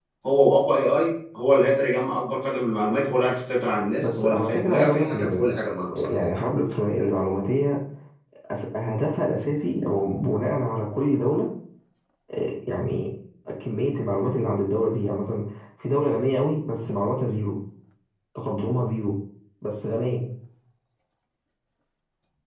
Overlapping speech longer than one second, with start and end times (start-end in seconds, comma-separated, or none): 4.0-5.5